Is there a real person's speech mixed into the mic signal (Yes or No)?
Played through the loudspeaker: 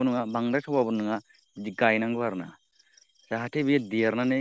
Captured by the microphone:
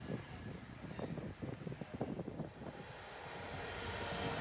No